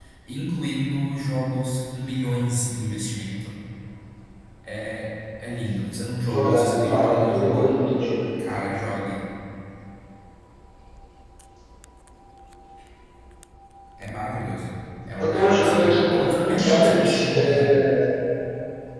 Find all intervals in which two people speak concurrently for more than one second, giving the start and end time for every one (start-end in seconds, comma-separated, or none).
6.3-7.7, 15.2-17.7